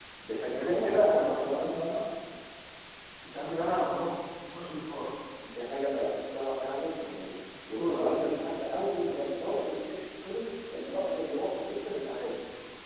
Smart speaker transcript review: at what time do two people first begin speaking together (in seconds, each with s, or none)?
0.5 s